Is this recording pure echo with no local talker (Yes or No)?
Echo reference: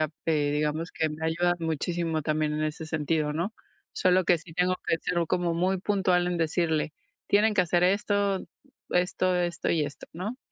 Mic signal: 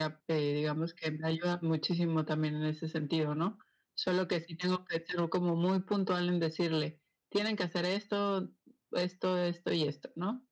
Yes